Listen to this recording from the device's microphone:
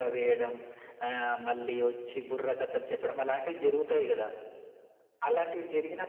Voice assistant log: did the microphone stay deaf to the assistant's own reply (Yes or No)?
No